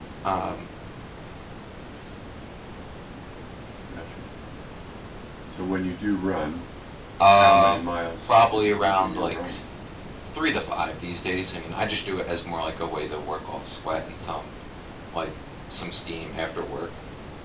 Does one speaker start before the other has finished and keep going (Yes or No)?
Yes